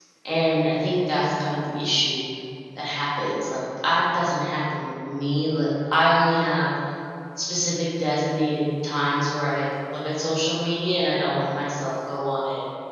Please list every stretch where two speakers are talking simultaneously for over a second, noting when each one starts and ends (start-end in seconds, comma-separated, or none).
none